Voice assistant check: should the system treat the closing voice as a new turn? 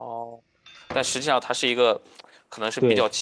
No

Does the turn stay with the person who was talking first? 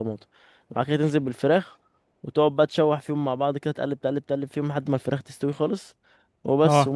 Yes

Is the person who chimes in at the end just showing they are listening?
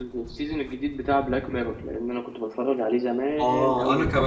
No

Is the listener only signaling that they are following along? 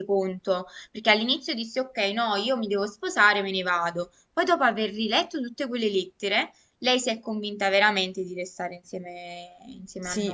No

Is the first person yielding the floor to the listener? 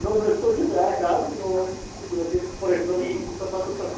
No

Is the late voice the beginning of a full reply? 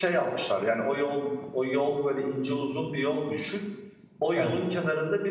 No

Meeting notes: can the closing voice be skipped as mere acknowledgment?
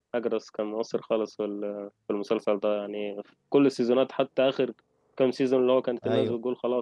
Yes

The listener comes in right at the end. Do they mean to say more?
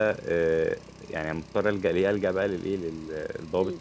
No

